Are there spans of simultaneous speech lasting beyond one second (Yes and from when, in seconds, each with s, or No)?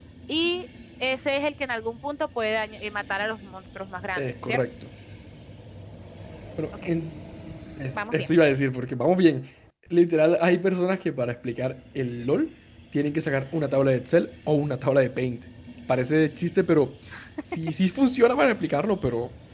No